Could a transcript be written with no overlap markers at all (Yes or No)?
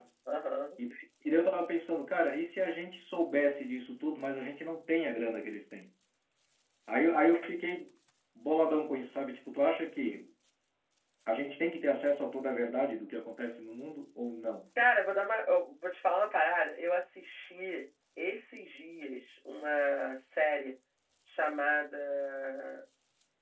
Yes